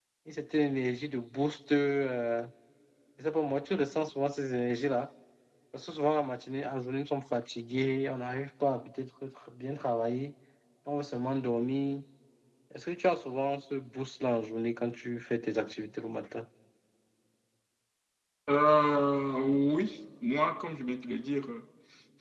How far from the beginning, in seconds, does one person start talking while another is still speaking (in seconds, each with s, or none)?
none